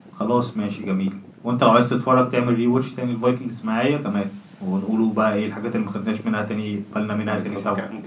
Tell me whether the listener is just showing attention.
No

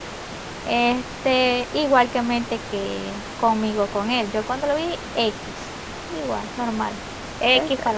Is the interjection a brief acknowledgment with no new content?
Yes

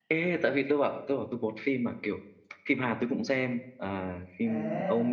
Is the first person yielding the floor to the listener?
Yes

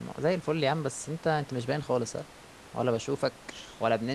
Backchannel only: Yes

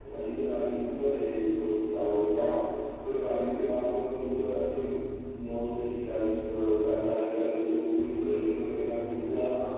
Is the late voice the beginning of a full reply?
No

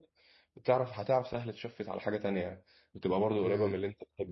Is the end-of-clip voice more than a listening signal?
Yes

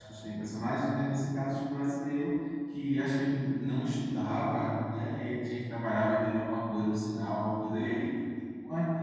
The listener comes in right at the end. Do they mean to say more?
No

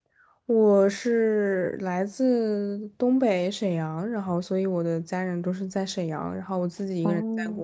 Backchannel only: Yes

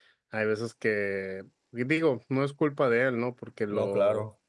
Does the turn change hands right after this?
No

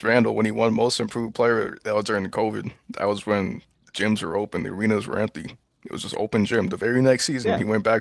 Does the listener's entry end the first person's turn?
Yes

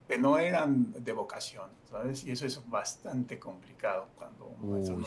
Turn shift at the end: No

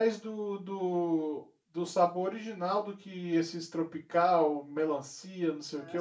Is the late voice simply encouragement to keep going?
No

